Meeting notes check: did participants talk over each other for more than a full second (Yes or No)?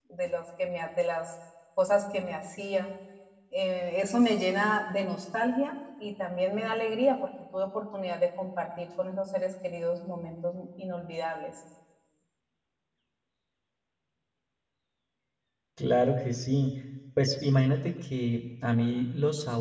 No